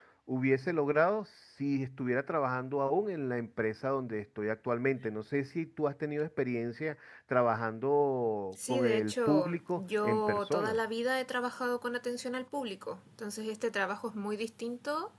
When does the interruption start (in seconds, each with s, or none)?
8.5 s